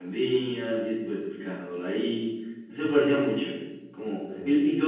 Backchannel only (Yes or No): Yes